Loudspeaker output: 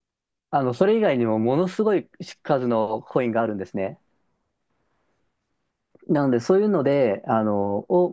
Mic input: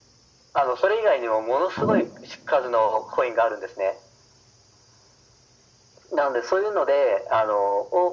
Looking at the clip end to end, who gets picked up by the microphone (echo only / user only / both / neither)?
both